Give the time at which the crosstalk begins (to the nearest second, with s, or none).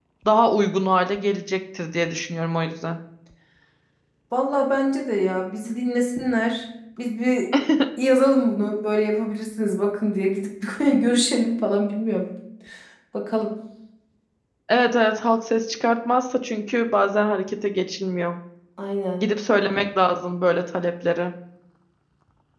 none